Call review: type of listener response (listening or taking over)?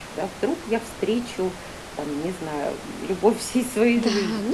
taking over